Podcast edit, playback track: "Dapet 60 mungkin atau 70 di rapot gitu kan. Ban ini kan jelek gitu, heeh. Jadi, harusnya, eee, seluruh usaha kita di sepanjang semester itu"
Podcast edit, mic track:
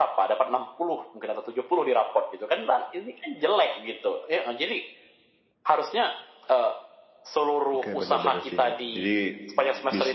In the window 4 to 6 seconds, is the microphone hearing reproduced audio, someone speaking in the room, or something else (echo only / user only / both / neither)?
echo only